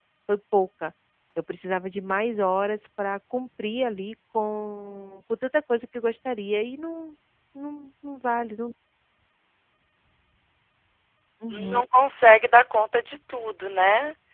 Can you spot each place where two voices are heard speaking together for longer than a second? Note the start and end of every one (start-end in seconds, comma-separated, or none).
none